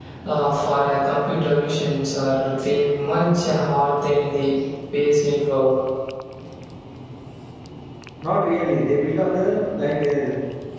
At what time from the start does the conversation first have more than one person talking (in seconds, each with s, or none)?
none